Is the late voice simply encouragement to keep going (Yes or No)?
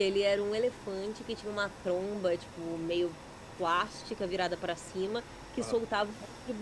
Yes